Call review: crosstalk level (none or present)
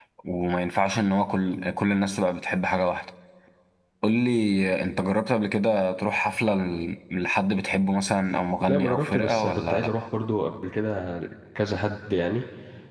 present